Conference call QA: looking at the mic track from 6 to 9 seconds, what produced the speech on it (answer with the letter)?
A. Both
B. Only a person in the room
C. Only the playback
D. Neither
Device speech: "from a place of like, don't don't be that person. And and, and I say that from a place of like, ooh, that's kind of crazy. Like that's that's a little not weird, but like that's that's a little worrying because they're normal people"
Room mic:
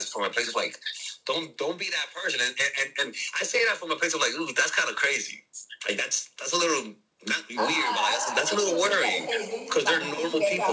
A